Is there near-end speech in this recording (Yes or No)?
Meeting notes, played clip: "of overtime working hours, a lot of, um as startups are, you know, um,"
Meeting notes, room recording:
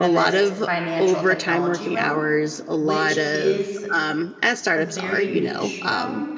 Yes